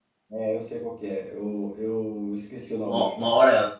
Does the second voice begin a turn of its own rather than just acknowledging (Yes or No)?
Yes